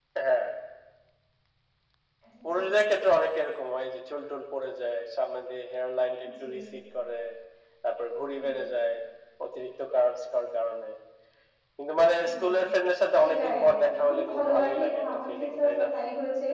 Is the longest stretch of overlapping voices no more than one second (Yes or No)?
No